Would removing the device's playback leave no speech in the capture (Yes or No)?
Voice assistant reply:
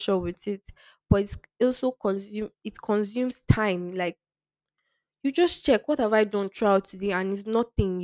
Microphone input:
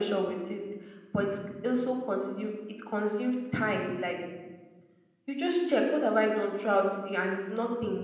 Yes